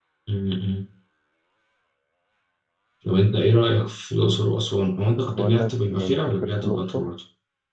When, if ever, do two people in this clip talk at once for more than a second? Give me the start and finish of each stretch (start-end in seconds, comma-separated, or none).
5.2-7.0